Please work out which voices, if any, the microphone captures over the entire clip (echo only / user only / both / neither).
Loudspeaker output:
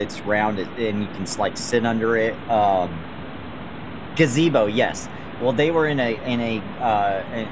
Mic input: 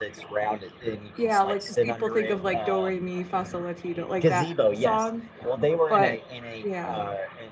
both